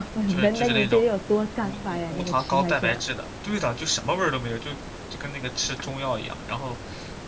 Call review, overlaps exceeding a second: present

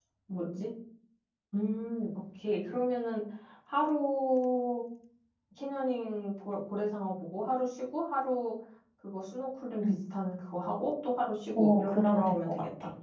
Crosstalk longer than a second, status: present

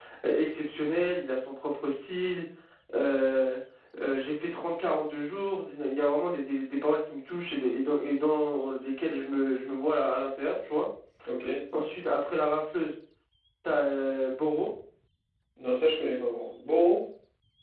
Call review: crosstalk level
none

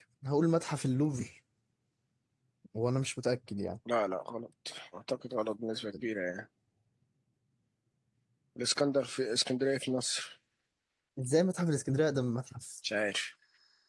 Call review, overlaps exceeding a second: none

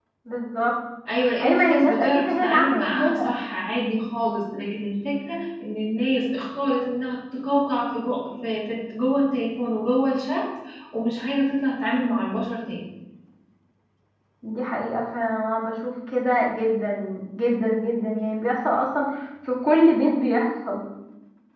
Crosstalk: present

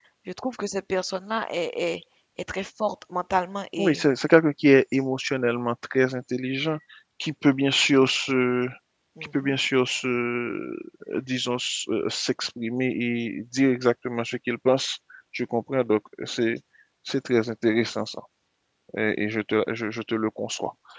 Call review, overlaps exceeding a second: none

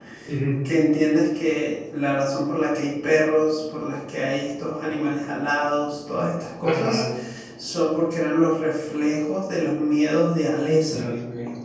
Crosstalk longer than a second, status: none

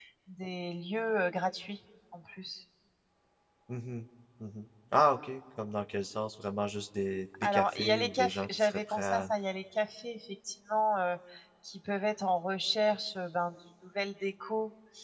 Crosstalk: present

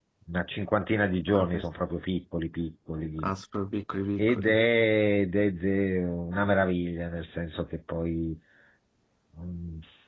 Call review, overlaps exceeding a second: none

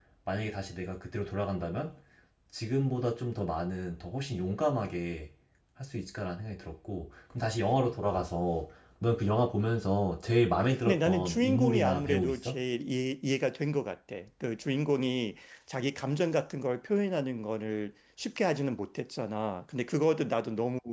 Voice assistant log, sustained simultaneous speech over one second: present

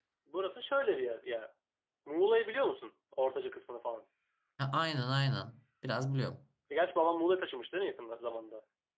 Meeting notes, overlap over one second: none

